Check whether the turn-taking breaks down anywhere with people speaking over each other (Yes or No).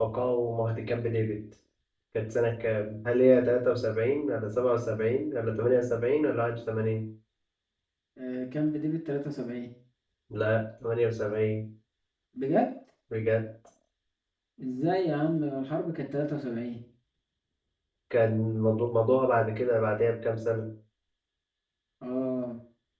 No